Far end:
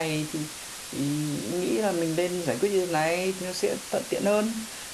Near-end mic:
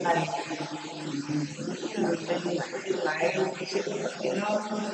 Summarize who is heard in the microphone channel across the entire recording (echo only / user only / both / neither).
echo only